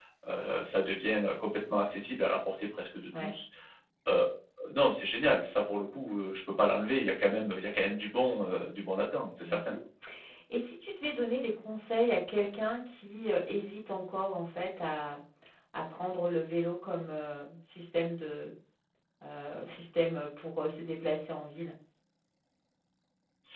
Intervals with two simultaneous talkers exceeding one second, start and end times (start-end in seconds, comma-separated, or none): none